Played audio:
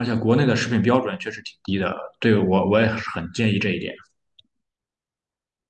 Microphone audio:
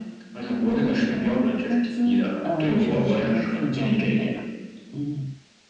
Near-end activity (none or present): present